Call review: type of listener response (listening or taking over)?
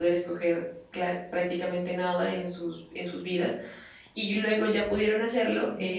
listening